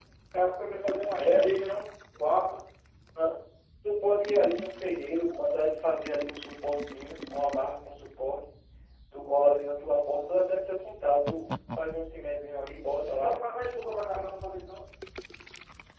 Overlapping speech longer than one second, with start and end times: none

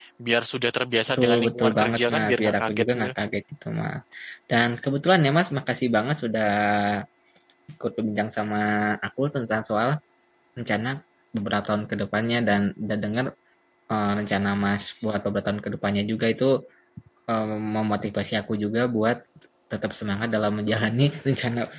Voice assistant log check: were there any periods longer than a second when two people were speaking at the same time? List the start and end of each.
1.2-3.1

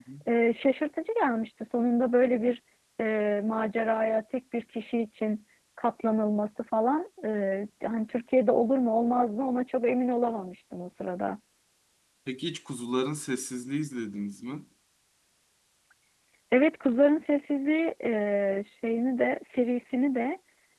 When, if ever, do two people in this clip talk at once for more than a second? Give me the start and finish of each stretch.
none

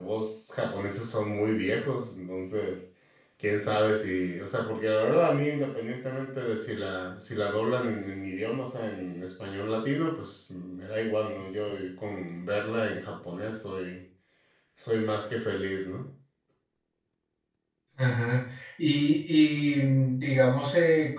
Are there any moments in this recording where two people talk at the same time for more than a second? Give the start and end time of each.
none

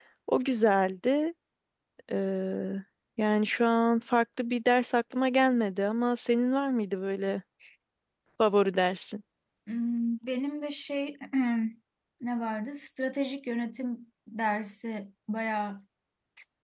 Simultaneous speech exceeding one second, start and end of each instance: none

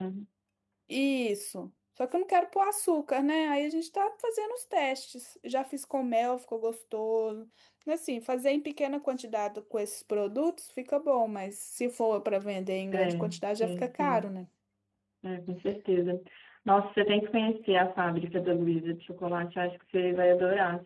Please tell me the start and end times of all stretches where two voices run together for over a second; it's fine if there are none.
12.9-14.3

